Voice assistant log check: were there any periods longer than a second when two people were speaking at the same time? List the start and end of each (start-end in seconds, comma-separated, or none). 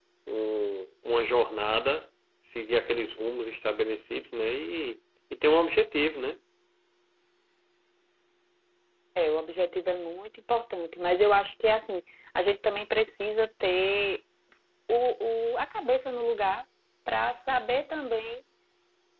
none